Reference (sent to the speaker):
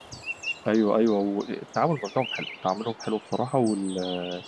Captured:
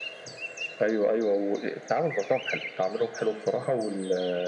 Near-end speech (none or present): none